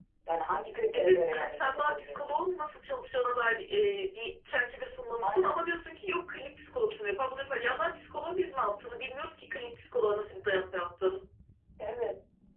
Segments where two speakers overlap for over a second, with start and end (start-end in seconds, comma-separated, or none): 0.9-2.4